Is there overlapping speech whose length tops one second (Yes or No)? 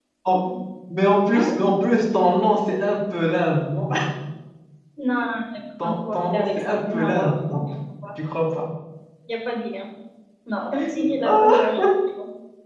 Yes